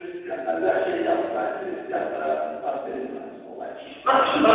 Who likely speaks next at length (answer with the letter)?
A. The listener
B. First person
A